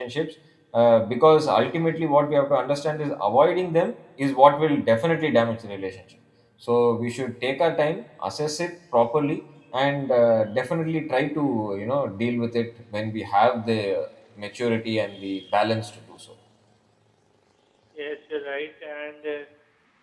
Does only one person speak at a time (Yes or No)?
Yes